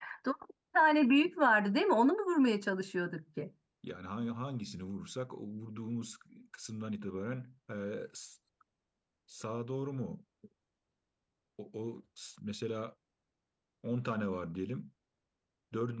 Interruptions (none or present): none